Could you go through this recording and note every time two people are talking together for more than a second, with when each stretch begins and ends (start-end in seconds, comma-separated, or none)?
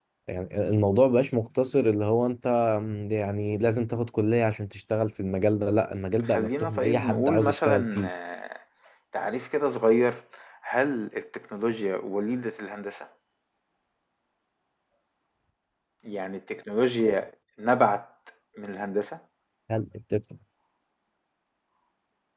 6.2-8.1